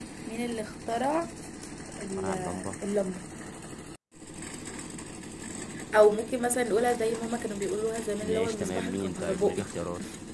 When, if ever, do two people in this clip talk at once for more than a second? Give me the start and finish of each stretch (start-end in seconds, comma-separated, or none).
8.2-9.7